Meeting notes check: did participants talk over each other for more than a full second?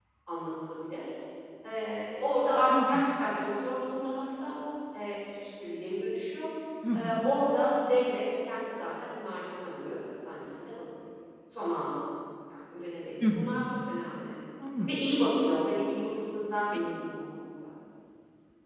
No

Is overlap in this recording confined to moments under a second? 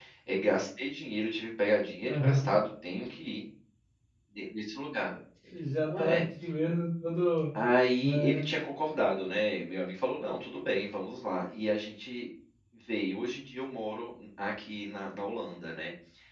Yes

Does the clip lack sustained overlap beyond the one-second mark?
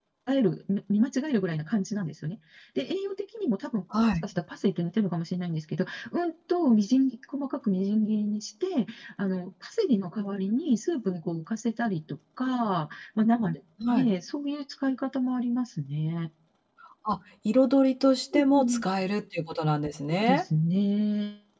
Yes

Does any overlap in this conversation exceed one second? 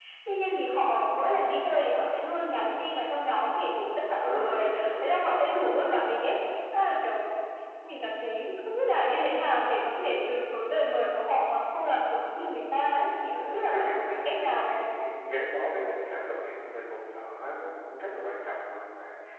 Yes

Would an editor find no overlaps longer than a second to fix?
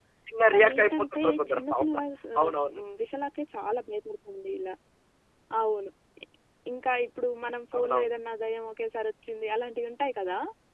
No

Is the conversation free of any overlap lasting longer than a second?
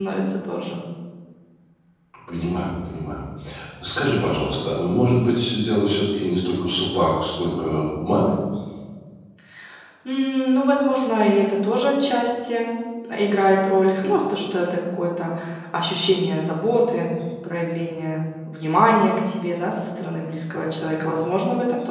Yes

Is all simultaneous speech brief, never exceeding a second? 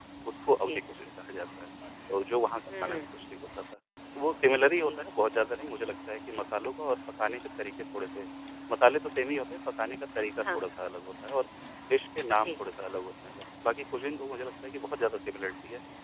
Yes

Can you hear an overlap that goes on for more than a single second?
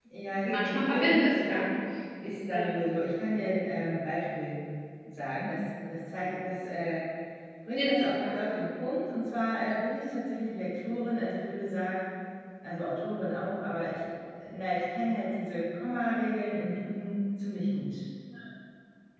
Yes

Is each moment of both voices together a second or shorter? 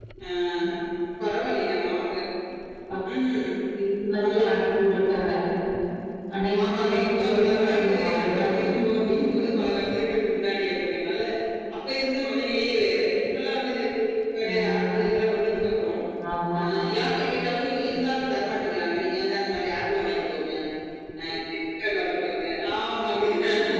No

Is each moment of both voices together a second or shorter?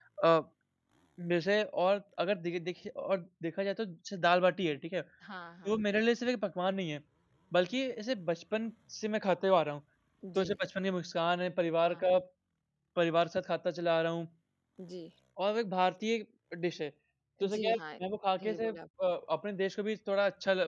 Yes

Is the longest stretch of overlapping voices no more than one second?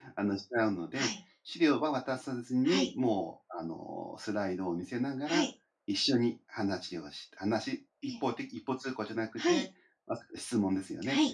Yes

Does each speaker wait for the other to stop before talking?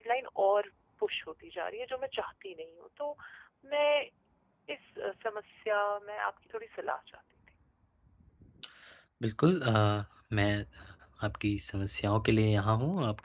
Yes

